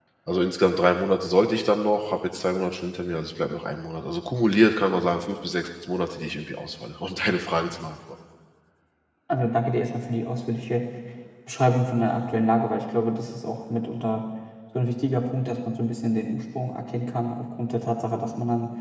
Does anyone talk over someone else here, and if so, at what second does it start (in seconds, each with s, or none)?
none